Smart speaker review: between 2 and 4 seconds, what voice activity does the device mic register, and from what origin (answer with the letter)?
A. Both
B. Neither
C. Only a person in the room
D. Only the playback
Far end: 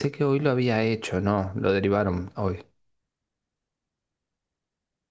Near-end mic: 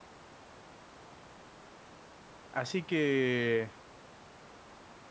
C